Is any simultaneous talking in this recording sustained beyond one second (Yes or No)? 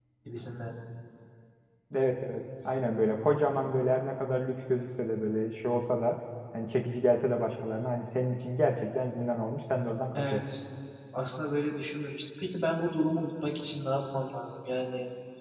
No